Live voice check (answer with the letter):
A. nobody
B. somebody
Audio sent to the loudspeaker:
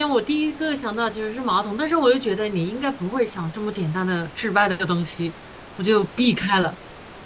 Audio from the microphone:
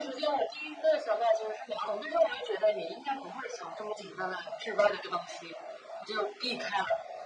A